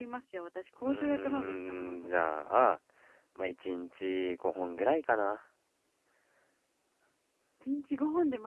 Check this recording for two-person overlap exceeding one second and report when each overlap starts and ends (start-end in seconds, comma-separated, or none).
0.8-2.3